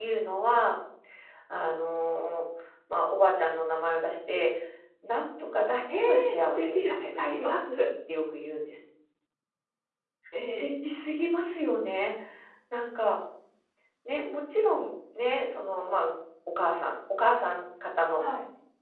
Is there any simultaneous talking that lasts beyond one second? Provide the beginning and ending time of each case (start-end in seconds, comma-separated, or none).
5.9-7.6